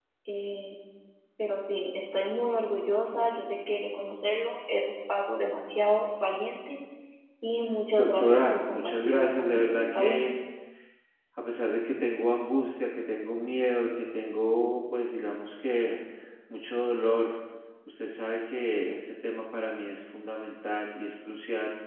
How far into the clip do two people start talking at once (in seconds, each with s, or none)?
8.0 s